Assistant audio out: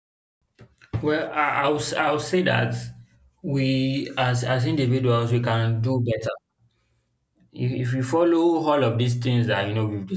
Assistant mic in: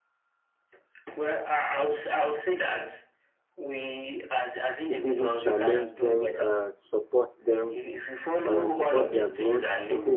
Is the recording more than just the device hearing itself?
Yes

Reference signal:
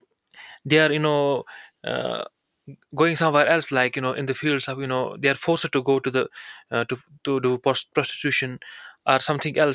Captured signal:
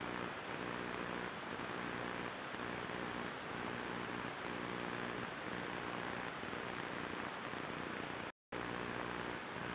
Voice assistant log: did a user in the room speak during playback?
No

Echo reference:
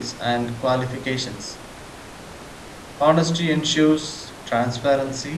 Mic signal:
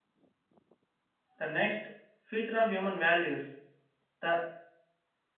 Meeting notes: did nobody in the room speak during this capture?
No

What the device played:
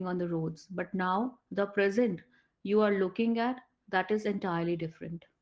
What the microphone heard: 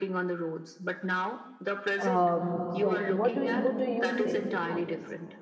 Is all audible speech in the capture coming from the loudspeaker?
No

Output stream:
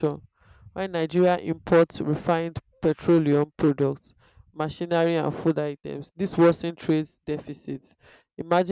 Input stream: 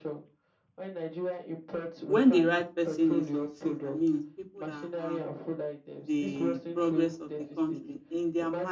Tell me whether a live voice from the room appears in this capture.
Yes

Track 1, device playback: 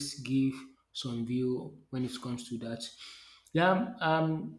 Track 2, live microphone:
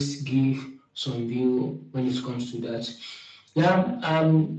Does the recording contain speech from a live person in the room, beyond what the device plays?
No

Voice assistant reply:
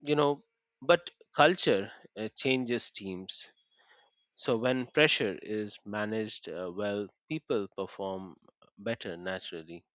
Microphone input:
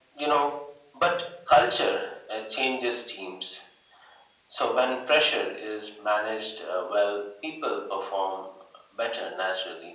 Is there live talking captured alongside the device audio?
No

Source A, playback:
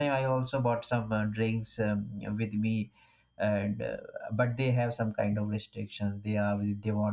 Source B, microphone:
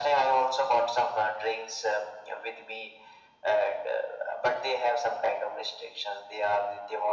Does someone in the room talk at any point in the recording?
No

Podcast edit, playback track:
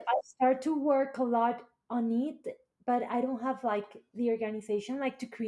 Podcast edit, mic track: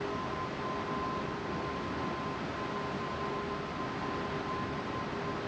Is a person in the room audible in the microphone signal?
No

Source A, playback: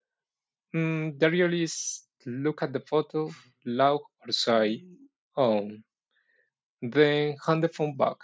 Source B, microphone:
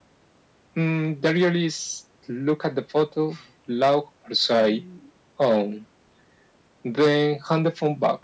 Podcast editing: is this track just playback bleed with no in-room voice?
Yes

